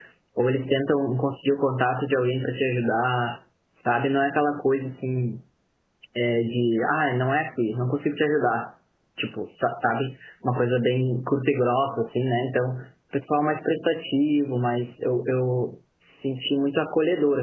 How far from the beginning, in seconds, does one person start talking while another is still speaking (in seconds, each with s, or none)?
none